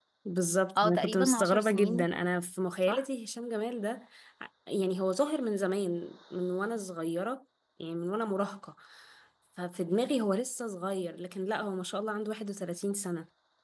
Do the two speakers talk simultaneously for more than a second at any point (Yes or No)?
Yes